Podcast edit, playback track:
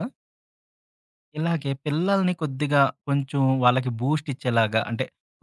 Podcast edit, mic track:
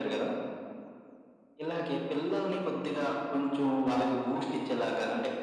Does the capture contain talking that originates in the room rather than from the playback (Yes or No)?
No